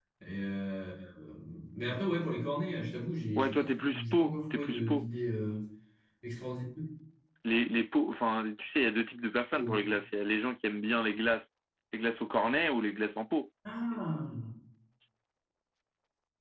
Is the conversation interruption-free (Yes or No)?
No